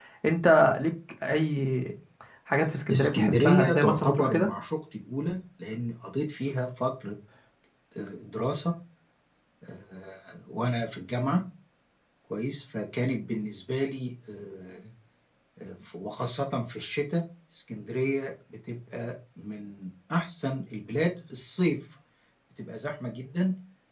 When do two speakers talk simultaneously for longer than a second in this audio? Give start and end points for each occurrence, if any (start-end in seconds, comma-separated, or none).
2.9-4.5